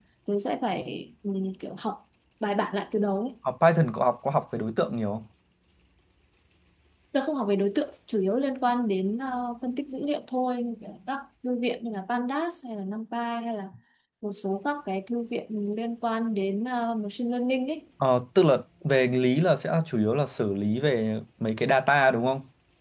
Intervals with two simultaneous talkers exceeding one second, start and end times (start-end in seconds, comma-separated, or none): none